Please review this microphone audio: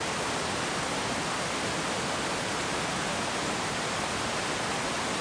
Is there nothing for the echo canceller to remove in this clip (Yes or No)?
Yes